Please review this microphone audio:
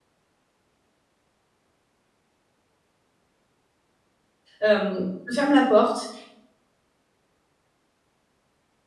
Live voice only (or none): Hem, je ferme la porte